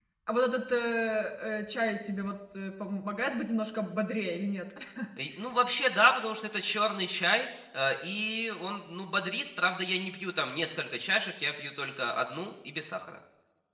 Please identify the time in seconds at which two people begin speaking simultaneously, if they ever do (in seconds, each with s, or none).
none